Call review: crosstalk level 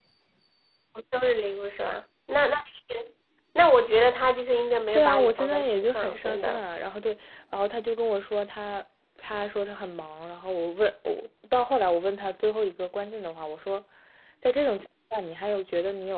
present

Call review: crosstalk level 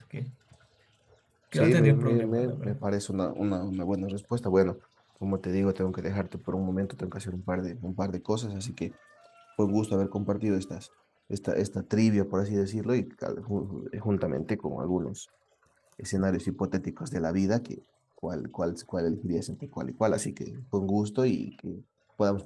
present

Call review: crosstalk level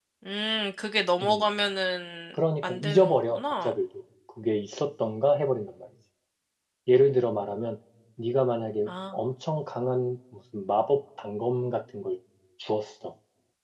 present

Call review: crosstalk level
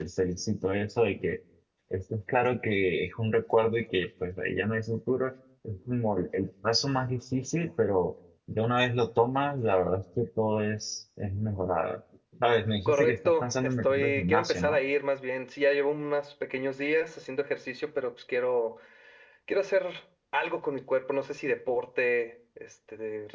present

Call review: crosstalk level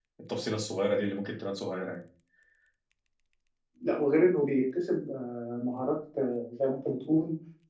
none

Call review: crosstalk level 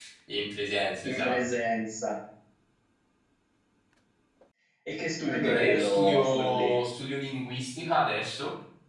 present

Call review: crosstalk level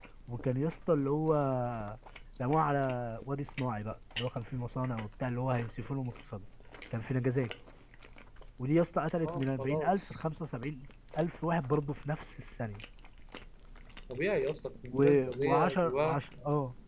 present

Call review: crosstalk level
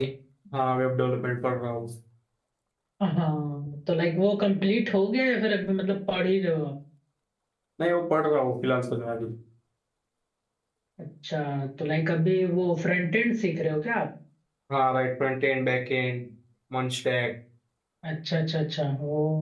none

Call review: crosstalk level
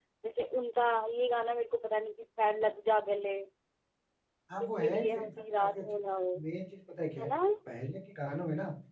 present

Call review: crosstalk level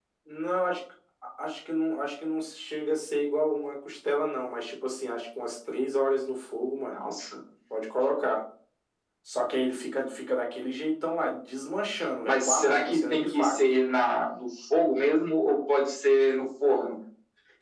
present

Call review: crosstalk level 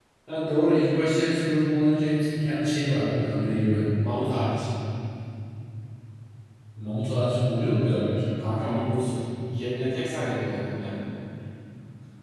none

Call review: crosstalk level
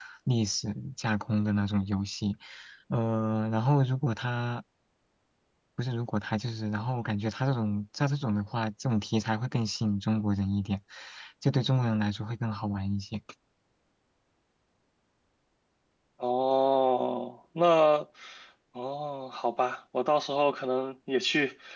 none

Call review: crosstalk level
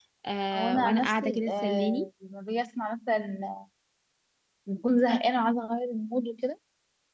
present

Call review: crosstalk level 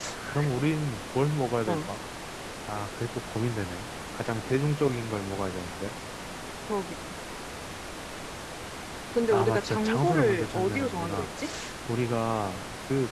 present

